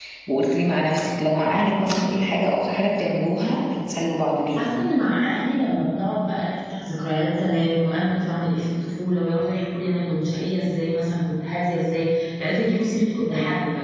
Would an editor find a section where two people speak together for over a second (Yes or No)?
No